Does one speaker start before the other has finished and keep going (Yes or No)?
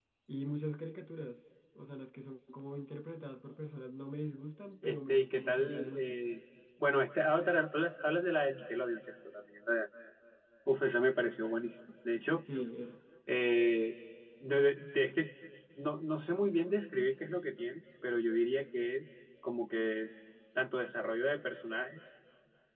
Yes